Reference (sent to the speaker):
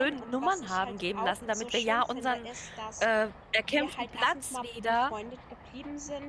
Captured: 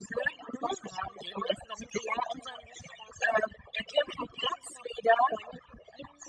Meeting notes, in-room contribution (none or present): none